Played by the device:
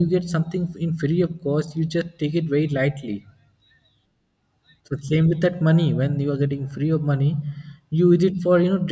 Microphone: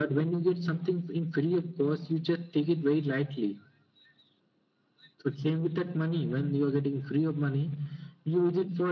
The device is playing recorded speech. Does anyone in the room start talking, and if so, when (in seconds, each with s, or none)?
none